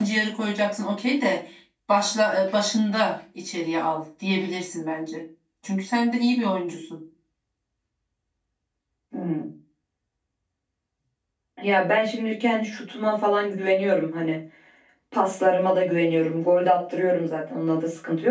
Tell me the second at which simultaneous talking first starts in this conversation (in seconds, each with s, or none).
none